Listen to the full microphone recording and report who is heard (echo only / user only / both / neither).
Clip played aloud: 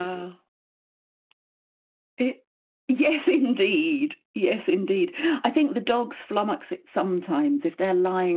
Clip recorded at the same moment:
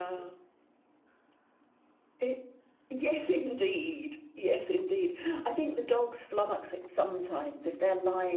echo only